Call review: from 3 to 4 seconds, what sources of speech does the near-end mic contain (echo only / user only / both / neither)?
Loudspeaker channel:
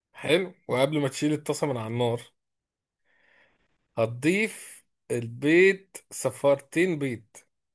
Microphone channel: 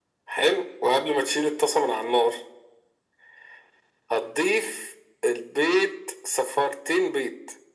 neither